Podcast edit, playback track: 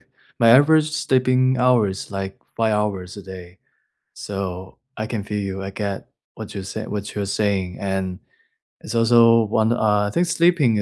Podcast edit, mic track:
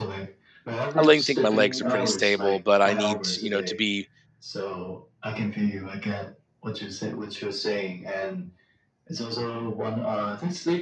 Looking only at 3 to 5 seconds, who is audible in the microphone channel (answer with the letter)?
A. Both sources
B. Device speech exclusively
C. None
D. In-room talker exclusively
A